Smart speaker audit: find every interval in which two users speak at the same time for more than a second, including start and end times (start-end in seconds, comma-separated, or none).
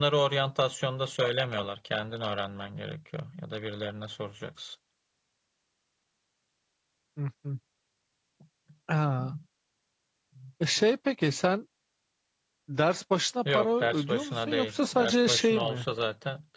13.5-15.8